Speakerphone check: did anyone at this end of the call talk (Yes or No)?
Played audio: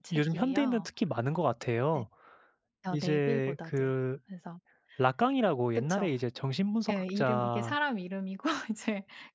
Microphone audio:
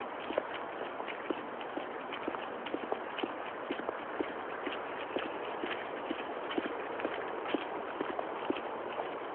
No